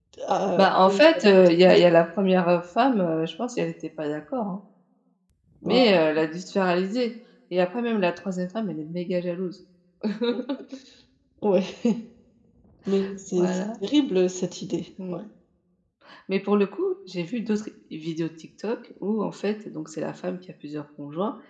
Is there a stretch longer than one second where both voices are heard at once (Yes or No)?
Yes